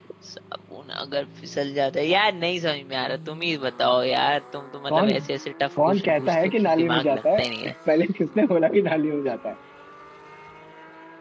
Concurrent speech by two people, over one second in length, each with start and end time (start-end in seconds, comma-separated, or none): 5.9-7.5